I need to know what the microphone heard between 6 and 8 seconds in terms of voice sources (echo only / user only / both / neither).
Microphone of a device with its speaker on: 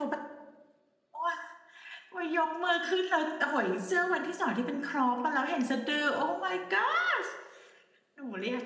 user only